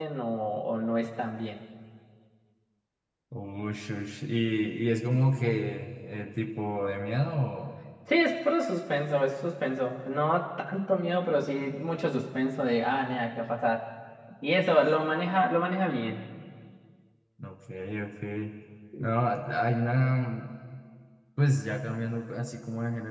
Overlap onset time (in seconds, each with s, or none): none